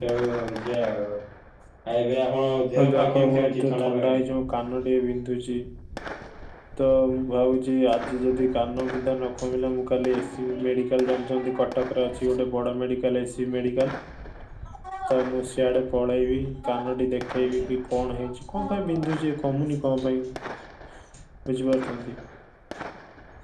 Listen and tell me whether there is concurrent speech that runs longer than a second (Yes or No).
Yes